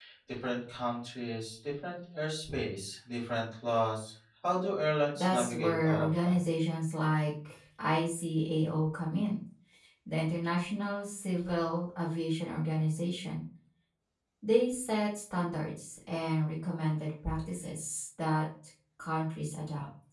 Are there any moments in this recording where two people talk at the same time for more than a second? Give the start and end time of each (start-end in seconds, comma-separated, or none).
5.2-6.4